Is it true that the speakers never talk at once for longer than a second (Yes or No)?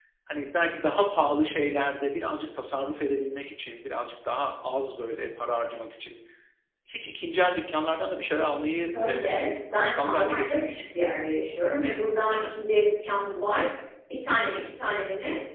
No